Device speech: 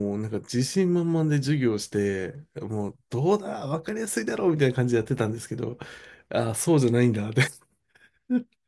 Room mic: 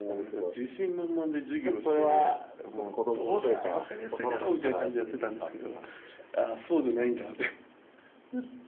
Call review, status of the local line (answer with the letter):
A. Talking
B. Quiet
A